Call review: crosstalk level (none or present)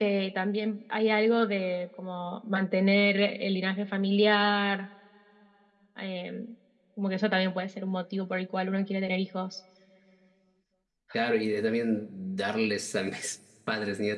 none